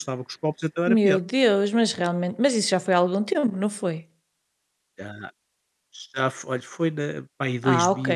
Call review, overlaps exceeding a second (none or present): none